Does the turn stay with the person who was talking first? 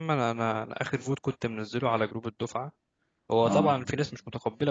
Yes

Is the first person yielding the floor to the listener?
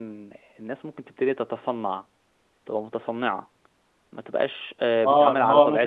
Yes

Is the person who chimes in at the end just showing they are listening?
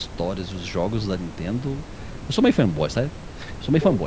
Yes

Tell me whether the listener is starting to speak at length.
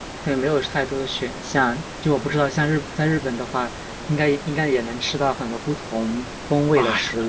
Yes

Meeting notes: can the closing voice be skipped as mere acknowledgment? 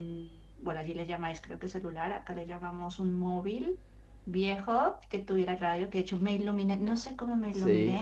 Yes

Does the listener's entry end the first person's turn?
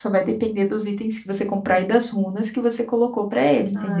Yes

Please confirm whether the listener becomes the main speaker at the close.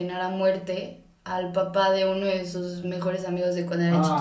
Yes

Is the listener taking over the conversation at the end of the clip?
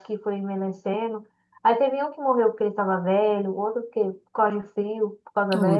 No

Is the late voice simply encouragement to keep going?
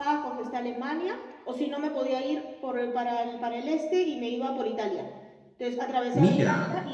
Yes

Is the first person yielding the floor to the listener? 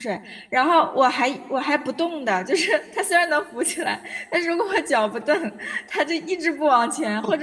Yes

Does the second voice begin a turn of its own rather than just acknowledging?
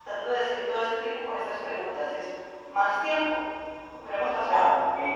Yes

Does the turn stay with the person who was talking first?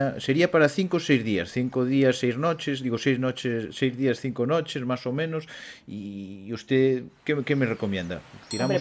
Yes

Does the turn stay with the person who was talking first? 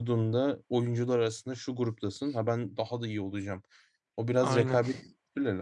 Yes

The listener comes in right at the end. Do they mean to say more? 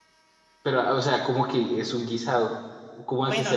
Yes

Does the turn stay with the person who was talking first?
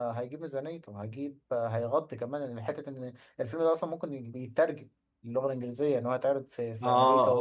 No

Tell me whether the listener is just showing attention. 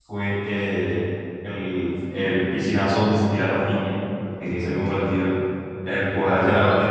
Yes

